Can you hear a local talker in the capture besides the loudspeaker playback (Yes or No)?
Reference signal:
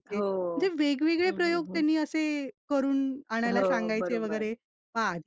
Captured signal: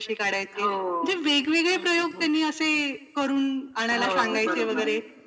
Yes